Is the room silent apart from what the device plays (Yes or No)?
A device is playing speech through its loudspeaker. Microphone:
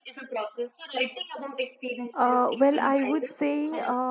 No